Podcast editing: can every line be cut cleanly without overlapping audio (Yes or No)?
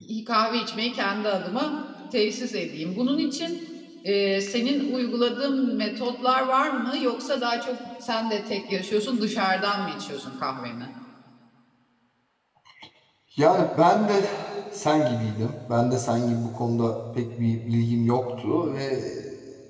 Yes